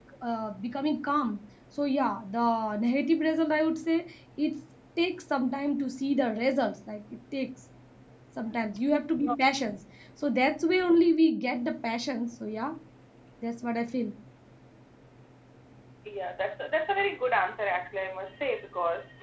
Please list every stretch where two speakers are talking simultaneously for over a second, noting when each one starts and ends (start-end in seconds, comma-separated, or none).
none